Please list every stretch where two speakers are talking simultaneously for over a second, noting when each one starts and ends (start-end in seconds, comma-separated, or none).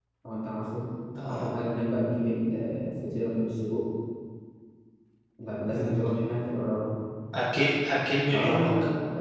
none